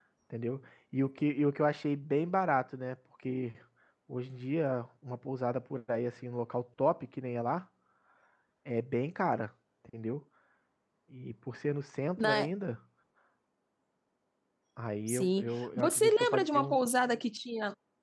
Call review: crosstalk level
present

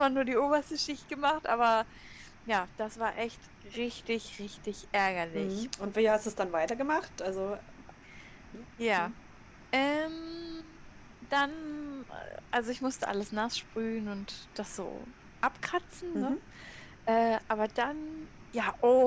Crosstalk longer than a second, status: none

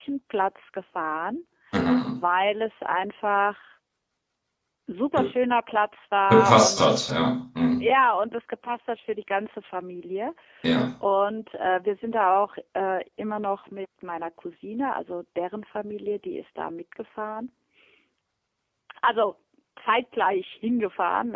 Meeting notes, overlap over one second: none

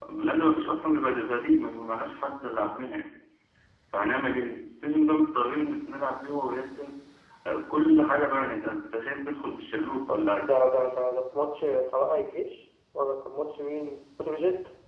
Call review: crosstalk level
none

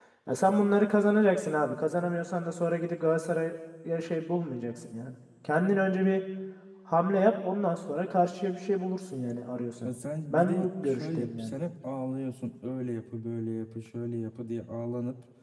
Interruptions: present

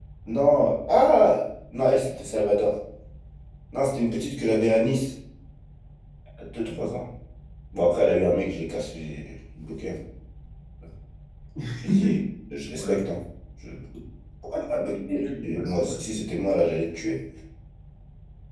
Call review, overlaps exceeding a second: present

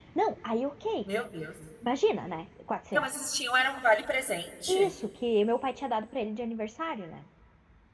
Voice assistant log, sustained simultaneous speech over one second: none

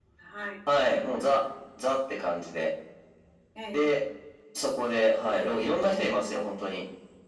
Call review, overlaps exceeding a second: present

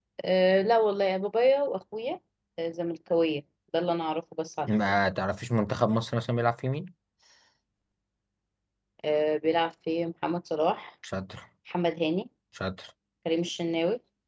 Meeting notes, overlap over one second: none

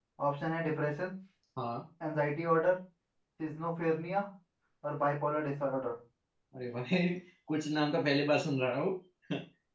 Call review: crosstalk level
none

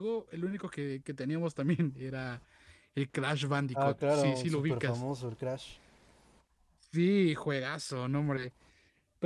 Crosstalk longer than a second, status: present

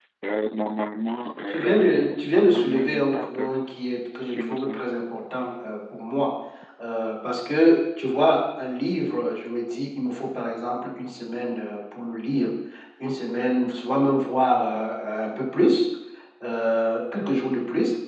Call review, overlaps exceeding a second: present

